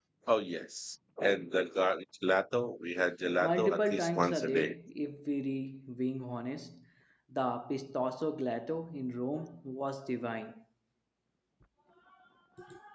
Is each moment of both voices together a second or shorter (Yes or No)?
No